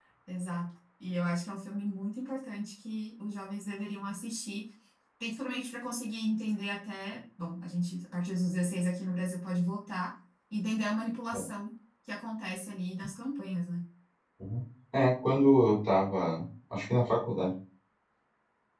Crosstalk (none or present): none